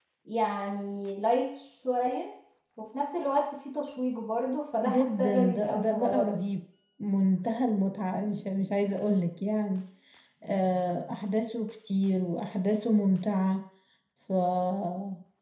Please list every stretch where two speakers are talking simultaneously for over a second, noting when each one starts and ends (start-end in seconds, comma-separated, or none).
4.8-6.3